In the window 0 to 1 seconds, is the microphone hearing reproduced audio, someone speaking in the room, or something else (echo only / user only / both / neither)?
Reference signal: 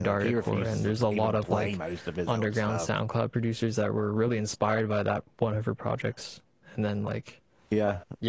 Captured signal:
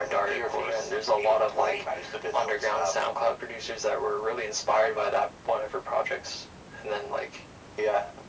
echo only